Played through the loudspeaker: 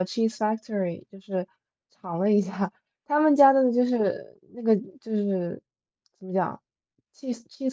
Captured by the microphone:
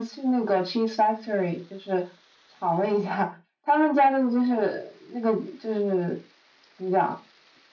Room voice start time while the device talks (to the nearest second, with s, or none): none